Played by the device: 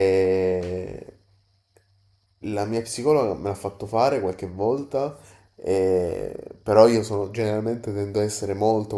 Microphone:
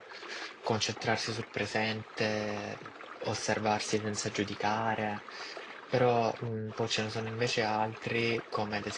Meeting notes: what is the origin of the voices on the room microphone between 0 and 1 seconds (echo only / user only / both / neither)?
user only